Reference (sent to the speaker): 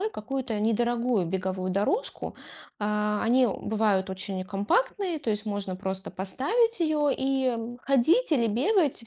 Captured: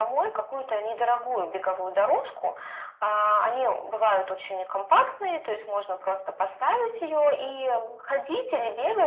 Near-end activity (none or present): none